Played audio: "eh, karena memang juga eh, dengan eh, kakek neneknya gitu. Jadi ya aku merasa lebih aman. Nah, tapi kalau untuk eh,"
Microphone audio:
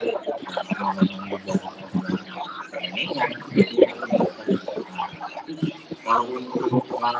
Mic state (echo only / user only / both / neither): echo only